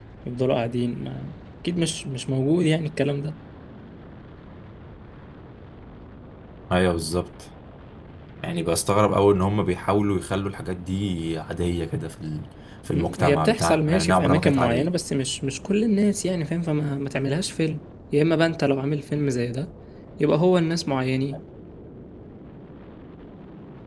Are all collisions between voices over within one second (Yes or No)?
No